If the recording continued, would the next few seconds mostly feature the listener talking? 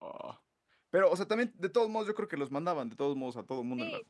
Yes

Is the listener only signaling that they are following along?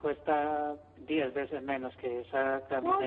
No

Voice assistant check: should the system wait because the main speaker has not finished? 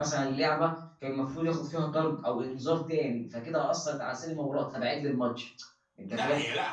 No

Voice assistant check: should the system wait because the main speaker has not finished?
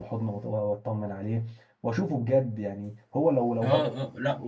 No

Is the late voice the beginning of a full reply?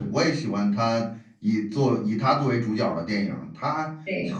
No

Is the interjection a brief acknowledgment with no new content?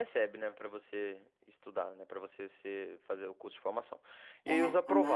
No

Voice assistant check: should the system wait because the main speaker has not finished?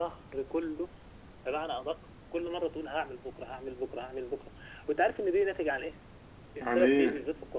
Yes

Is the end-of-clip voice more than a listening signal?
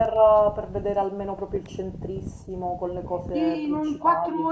Yes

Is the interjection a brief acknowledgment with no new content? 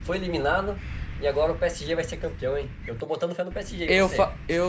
No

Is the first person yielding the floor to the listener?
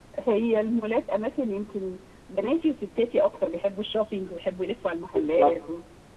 Yes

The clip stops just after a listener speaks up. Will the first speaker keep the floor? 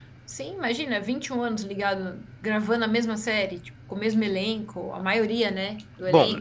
No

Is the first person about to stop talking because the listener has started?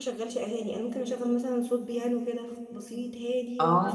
No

